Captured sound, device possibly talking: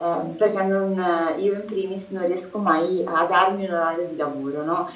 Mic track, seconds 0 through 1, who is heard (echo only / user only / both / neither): echo only